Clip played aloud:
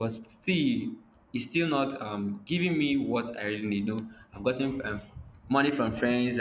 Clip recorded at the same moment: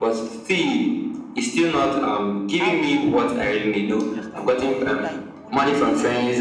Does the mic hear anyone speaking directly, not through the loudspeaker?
Yes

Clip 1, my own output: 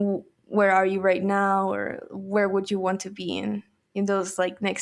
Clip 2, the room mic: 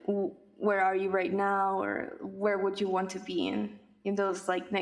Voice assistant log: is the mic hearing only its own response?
Yes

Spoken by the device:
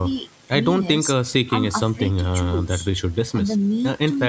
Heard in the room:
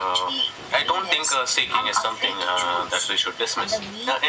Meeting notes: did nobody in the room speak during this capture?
Yes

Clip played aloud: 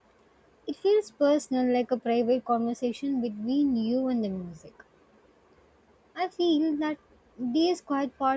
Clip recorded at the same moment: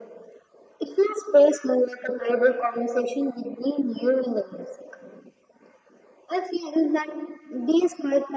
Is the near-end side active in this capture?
No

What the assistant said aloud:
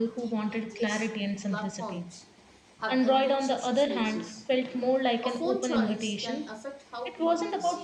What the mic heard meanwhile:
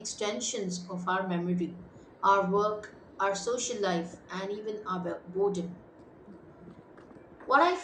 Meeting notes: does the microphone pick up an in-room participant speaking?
Yes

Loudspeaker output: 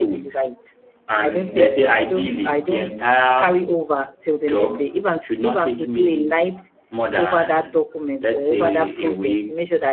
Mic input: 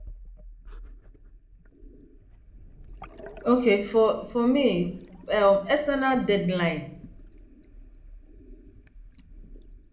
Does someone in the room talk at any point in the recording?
Yes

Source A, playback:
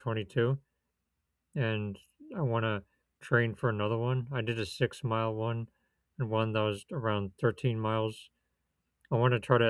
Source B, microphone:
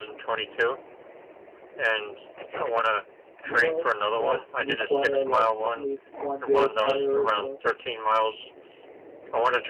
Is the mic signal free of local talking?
No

